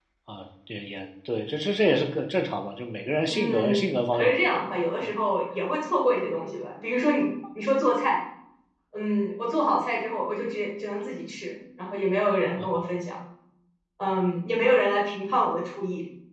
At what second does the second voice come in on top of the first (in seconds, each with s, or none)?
3.3 s